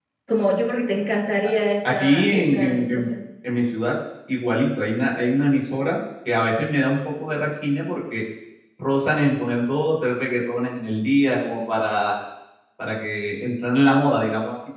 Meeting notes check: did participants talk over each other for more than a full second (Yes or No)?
Yes